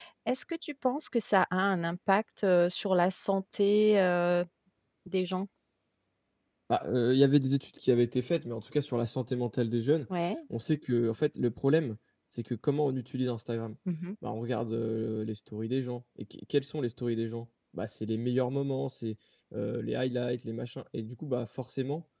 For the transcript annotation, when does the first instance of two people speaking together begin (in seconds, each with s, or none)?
none